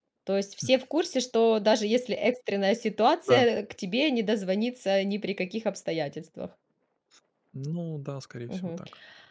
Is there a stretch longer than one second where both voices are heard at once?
No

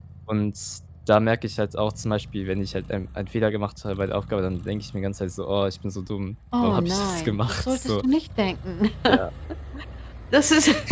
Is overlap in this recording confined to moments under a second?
No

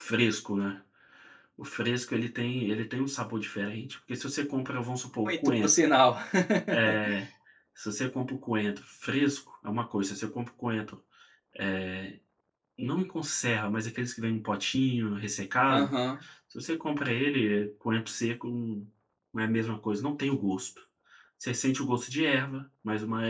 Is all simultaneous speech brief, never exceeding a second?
Yes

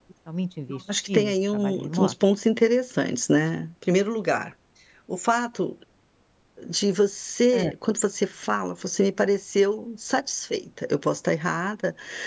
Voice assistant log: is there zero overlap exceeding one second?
No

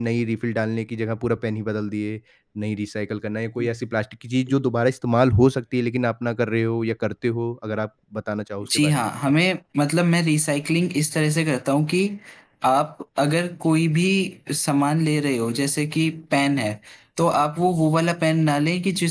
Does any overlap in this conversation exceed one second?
No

